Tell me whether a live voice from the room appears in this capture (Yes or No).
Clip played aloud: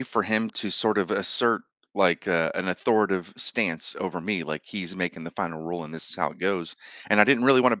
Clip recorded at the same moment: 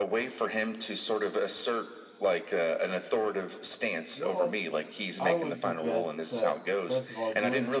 Yes